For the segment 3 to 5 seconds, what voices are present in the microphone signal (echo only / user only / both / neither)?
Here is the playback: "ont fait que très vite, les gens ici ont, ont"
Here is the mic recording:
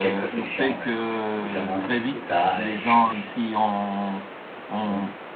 both